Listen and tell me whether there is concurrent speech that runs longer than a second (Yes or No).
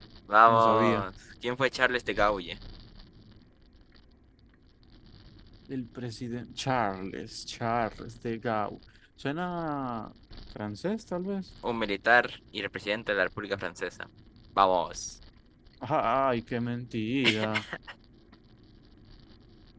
No